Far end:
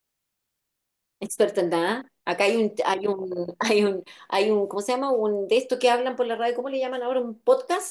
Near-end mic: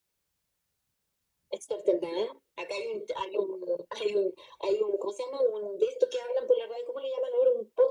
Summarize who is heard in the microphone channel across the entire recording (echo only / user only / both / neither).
echo only